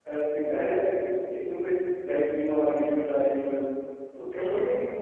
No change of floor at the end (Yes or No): Yes